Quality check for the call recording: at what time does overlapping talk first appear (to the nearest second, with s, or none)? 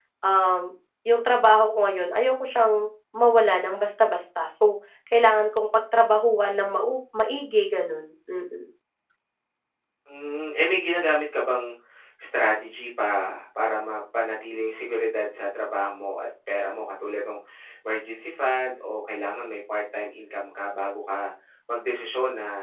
none